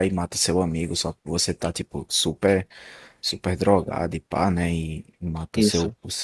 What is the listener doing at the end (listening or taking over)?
listening